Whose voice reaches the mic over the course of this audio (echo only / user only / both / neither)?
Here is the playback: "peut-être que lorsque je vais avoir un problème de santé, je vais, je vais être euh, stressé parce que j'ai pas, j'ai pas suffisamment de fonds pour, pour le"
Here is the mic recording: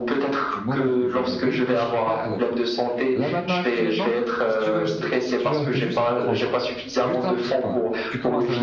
both